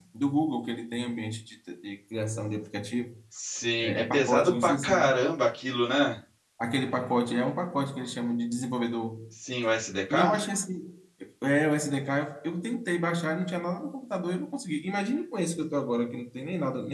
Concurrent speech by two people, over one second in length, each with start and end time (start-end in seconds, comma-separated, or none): 3.8-5.2